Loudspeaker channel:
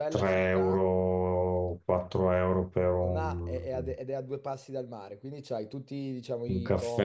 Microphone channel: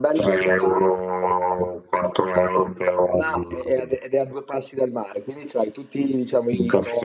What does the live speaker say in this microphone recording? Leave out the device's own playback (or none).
none